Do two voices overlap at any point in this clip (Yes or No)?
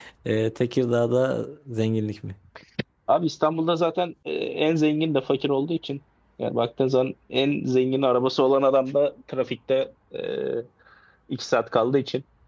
No